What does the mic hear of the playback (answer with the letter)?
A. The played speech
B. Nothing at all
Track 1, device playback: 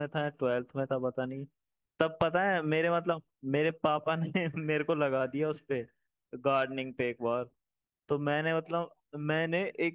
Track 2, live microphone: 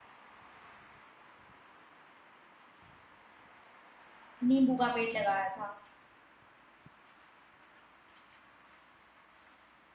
B